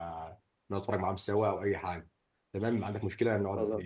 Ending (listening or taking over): listening